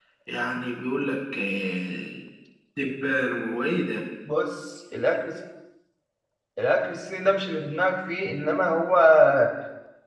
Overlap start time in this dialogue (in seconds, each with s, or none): none